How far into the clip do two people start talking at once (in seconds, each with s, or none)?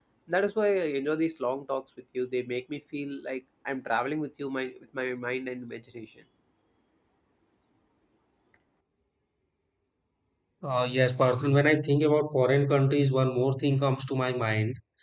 none